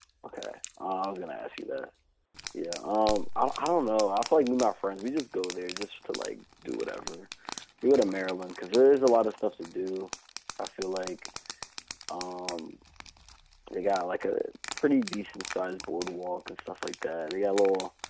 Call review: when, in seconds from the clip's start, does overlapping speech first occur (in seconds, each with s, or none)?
none